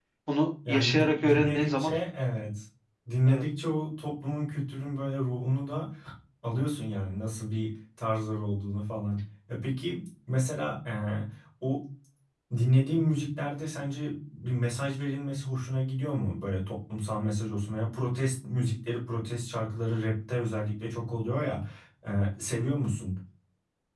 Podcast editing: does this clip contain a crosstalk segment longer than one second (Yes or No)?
Yes